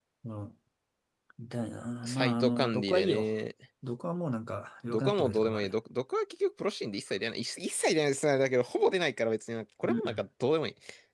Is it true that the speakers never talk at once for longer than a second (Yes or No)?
No